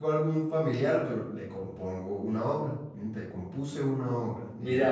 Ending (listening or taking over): taking over